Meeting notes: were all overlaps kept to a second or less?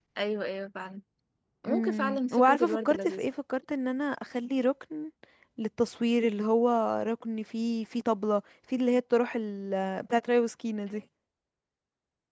No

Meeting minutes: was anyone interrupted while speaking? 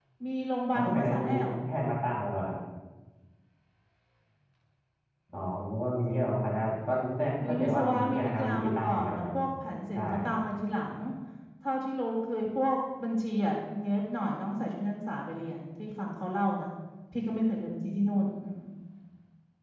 Yes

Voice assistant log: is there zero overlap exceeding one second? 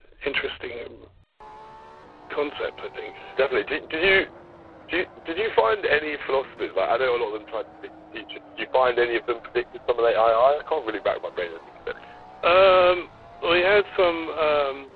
Yes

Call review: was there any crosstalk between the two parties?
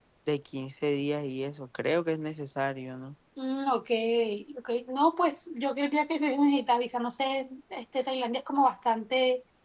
No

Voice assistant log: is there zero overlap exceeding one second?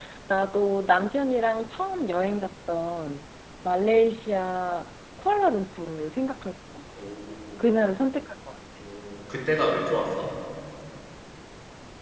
Yes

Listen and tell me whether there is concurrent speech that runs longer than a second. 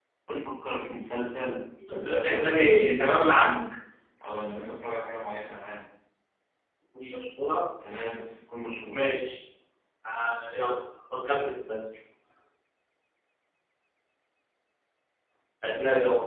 Yes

